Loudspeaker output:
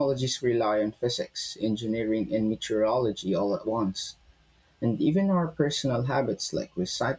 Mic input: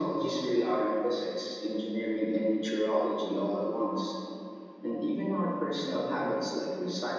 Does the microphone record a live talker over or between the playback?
No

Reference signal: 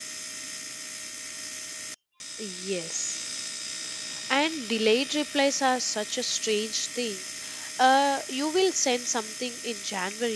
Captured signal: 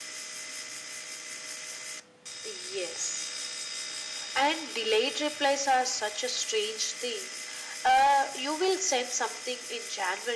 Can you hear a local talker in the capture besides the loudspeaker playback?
No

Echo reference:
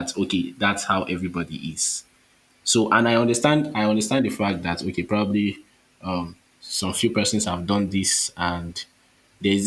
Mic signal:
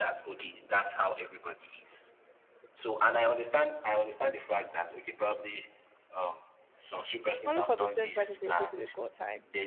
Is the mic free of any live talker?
No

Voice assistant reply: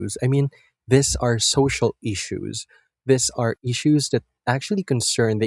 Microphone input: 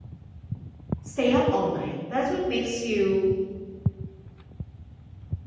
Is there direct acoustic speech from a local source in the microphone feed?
Yes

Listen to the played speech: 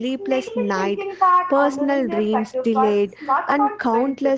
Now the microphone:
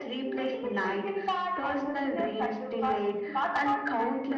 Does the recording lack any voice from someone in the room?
Yes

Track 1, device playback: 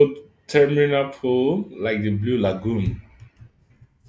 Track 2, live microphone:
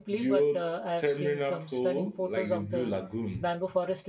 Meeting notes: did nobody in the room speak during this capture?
No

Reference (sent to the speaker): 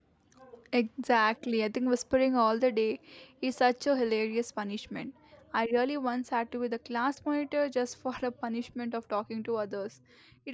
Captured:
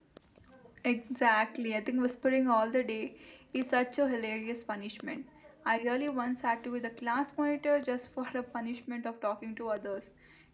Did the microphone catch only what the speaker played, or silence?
Yes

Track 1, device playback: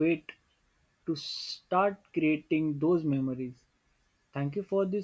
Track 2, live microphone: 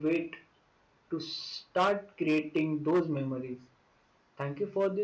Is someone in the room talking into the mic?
No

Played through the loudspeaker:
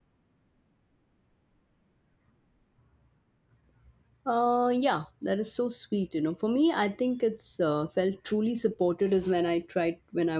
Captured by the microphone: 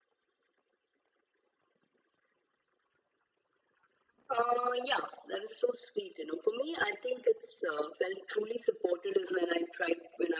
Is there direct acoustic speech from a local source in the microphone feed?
No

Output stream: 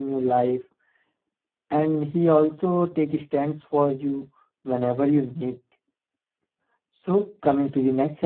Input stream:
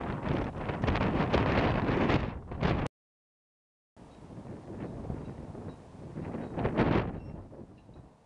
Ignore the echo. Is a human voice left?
No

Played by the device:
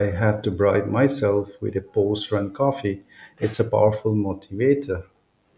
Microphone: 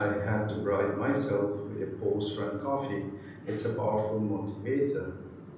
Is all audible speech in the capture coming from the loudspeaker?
Yes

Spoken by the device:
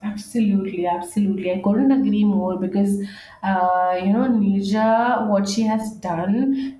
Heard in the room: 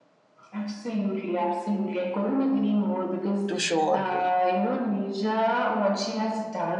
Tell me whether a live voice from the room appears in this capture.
Yes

